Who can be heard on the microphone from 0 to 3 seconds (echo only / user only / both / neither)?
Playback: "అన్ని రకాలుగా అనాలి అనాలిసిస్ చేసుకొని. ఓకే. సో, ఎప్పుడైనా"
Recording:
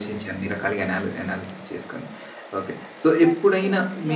echo only